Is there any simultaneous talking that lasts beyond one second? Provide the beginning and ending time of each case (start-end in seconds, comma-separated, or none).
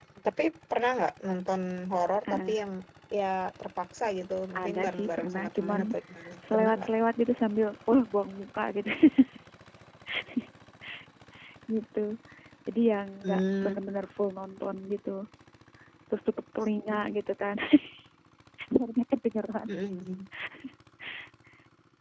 4.6-5.8